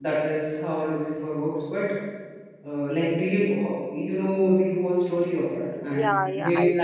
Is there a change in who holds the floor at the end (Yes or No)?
Yes